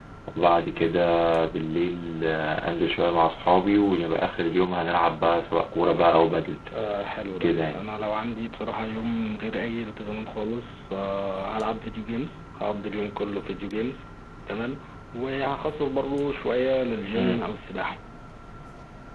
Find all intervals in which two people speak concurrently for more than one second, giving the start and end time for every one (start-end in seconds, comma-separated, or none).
none